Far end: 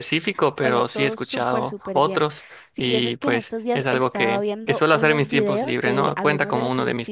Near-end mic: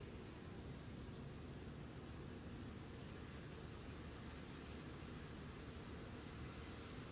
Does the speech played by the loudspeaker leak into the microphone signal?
No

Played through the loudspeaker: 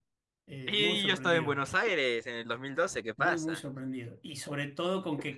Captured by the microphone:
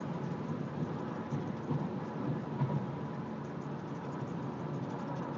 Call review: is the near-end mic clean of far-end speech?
Yes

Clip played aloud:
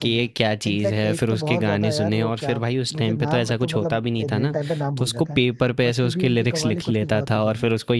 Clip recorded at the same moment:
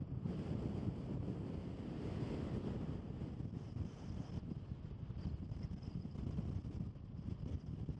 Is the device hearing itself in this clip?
No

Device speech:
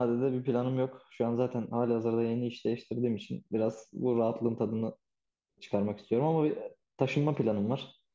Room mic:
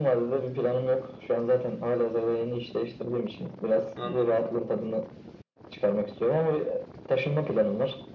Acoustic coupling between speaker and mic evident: Yes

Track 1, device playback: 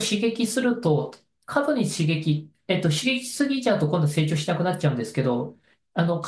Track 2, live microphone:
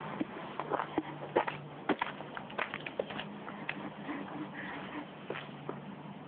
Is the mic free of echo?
Yes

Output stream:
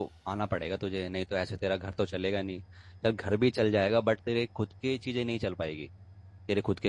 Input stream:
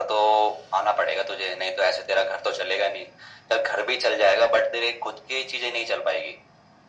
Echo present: Yes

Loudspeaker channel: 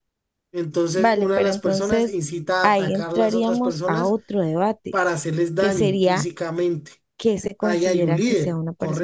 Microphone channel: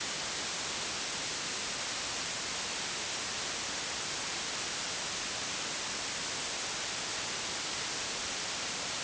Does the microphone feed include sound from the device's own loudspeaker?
No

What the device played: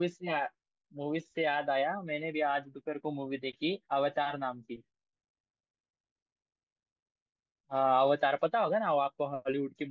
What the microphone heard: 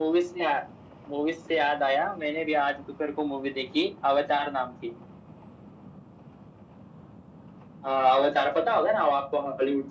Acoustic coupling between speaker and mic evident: Yes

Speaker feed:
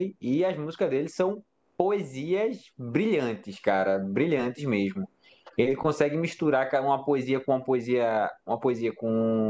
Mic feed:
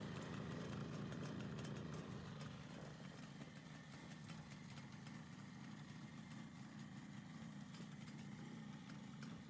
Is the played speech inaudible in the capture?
Yes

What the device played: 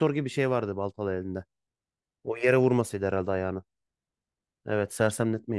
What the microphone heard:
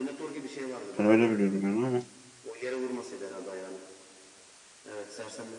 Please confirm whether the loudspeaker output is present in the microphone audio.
Yes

